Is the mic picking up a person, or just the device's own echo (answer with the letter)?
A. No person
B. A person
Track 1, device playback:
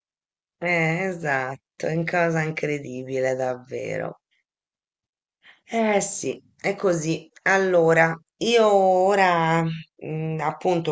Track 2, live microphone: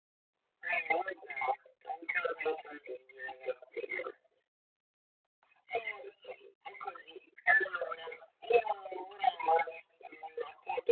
A